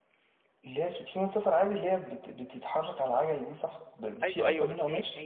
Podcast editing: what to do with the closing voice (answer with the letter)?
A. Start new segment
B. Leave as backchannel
A